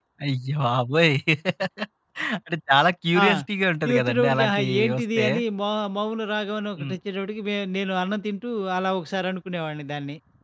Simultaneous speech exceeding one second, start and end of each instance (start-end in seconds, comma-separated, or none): 3.9-5.2